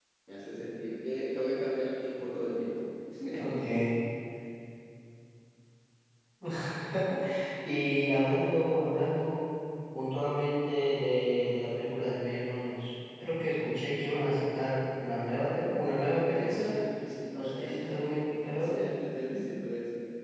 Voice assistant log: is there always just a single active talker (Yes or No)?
No